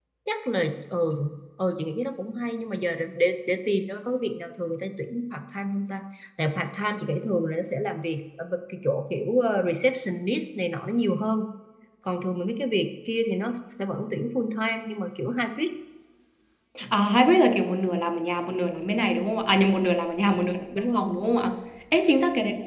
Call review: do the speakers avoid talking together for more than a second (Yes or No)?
Yes